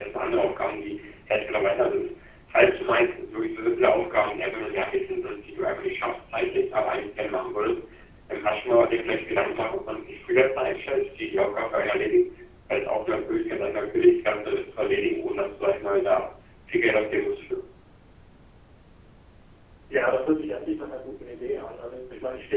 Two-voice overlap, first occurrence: none

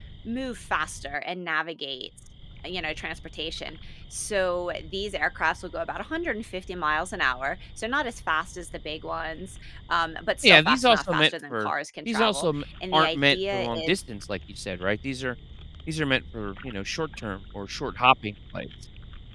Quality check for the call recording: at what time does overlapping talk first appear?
10.4 s

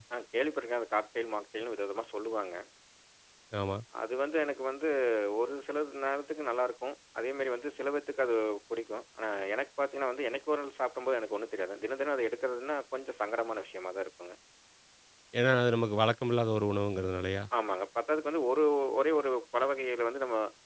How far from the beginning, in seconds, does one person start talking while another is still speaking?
none

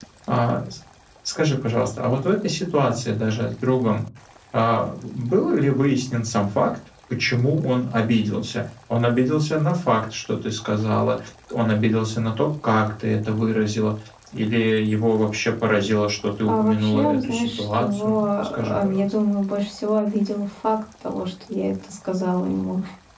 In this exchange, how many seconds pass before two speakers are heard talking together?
16.5 s

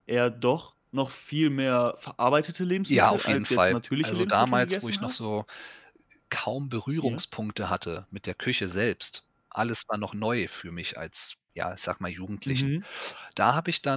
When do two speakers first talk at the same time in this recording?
2.9 s

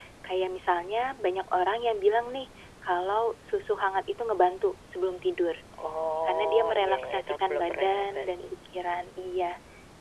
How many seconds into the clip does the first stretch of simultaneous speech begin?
6.3 s

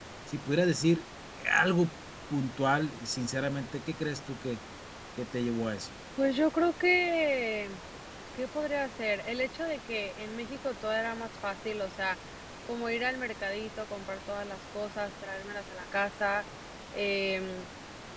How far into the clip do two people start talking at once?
none

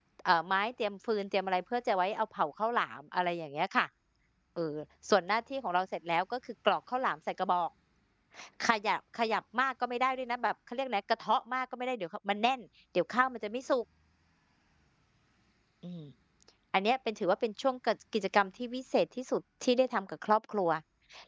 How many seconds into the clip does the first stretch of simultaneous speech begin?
none

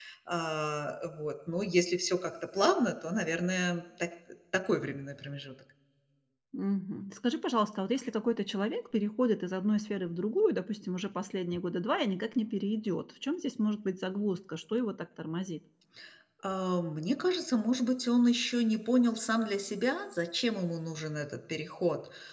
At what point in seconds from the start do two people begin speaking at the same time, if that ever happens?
none

